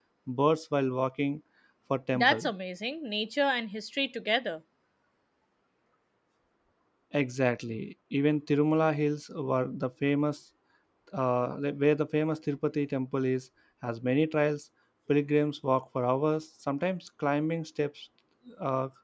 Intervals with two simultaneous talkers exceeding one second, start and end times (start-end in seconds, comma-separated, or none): none